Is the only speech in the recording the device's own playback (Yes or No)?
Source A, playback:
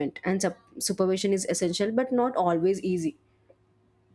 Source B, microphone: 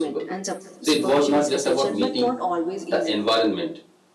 No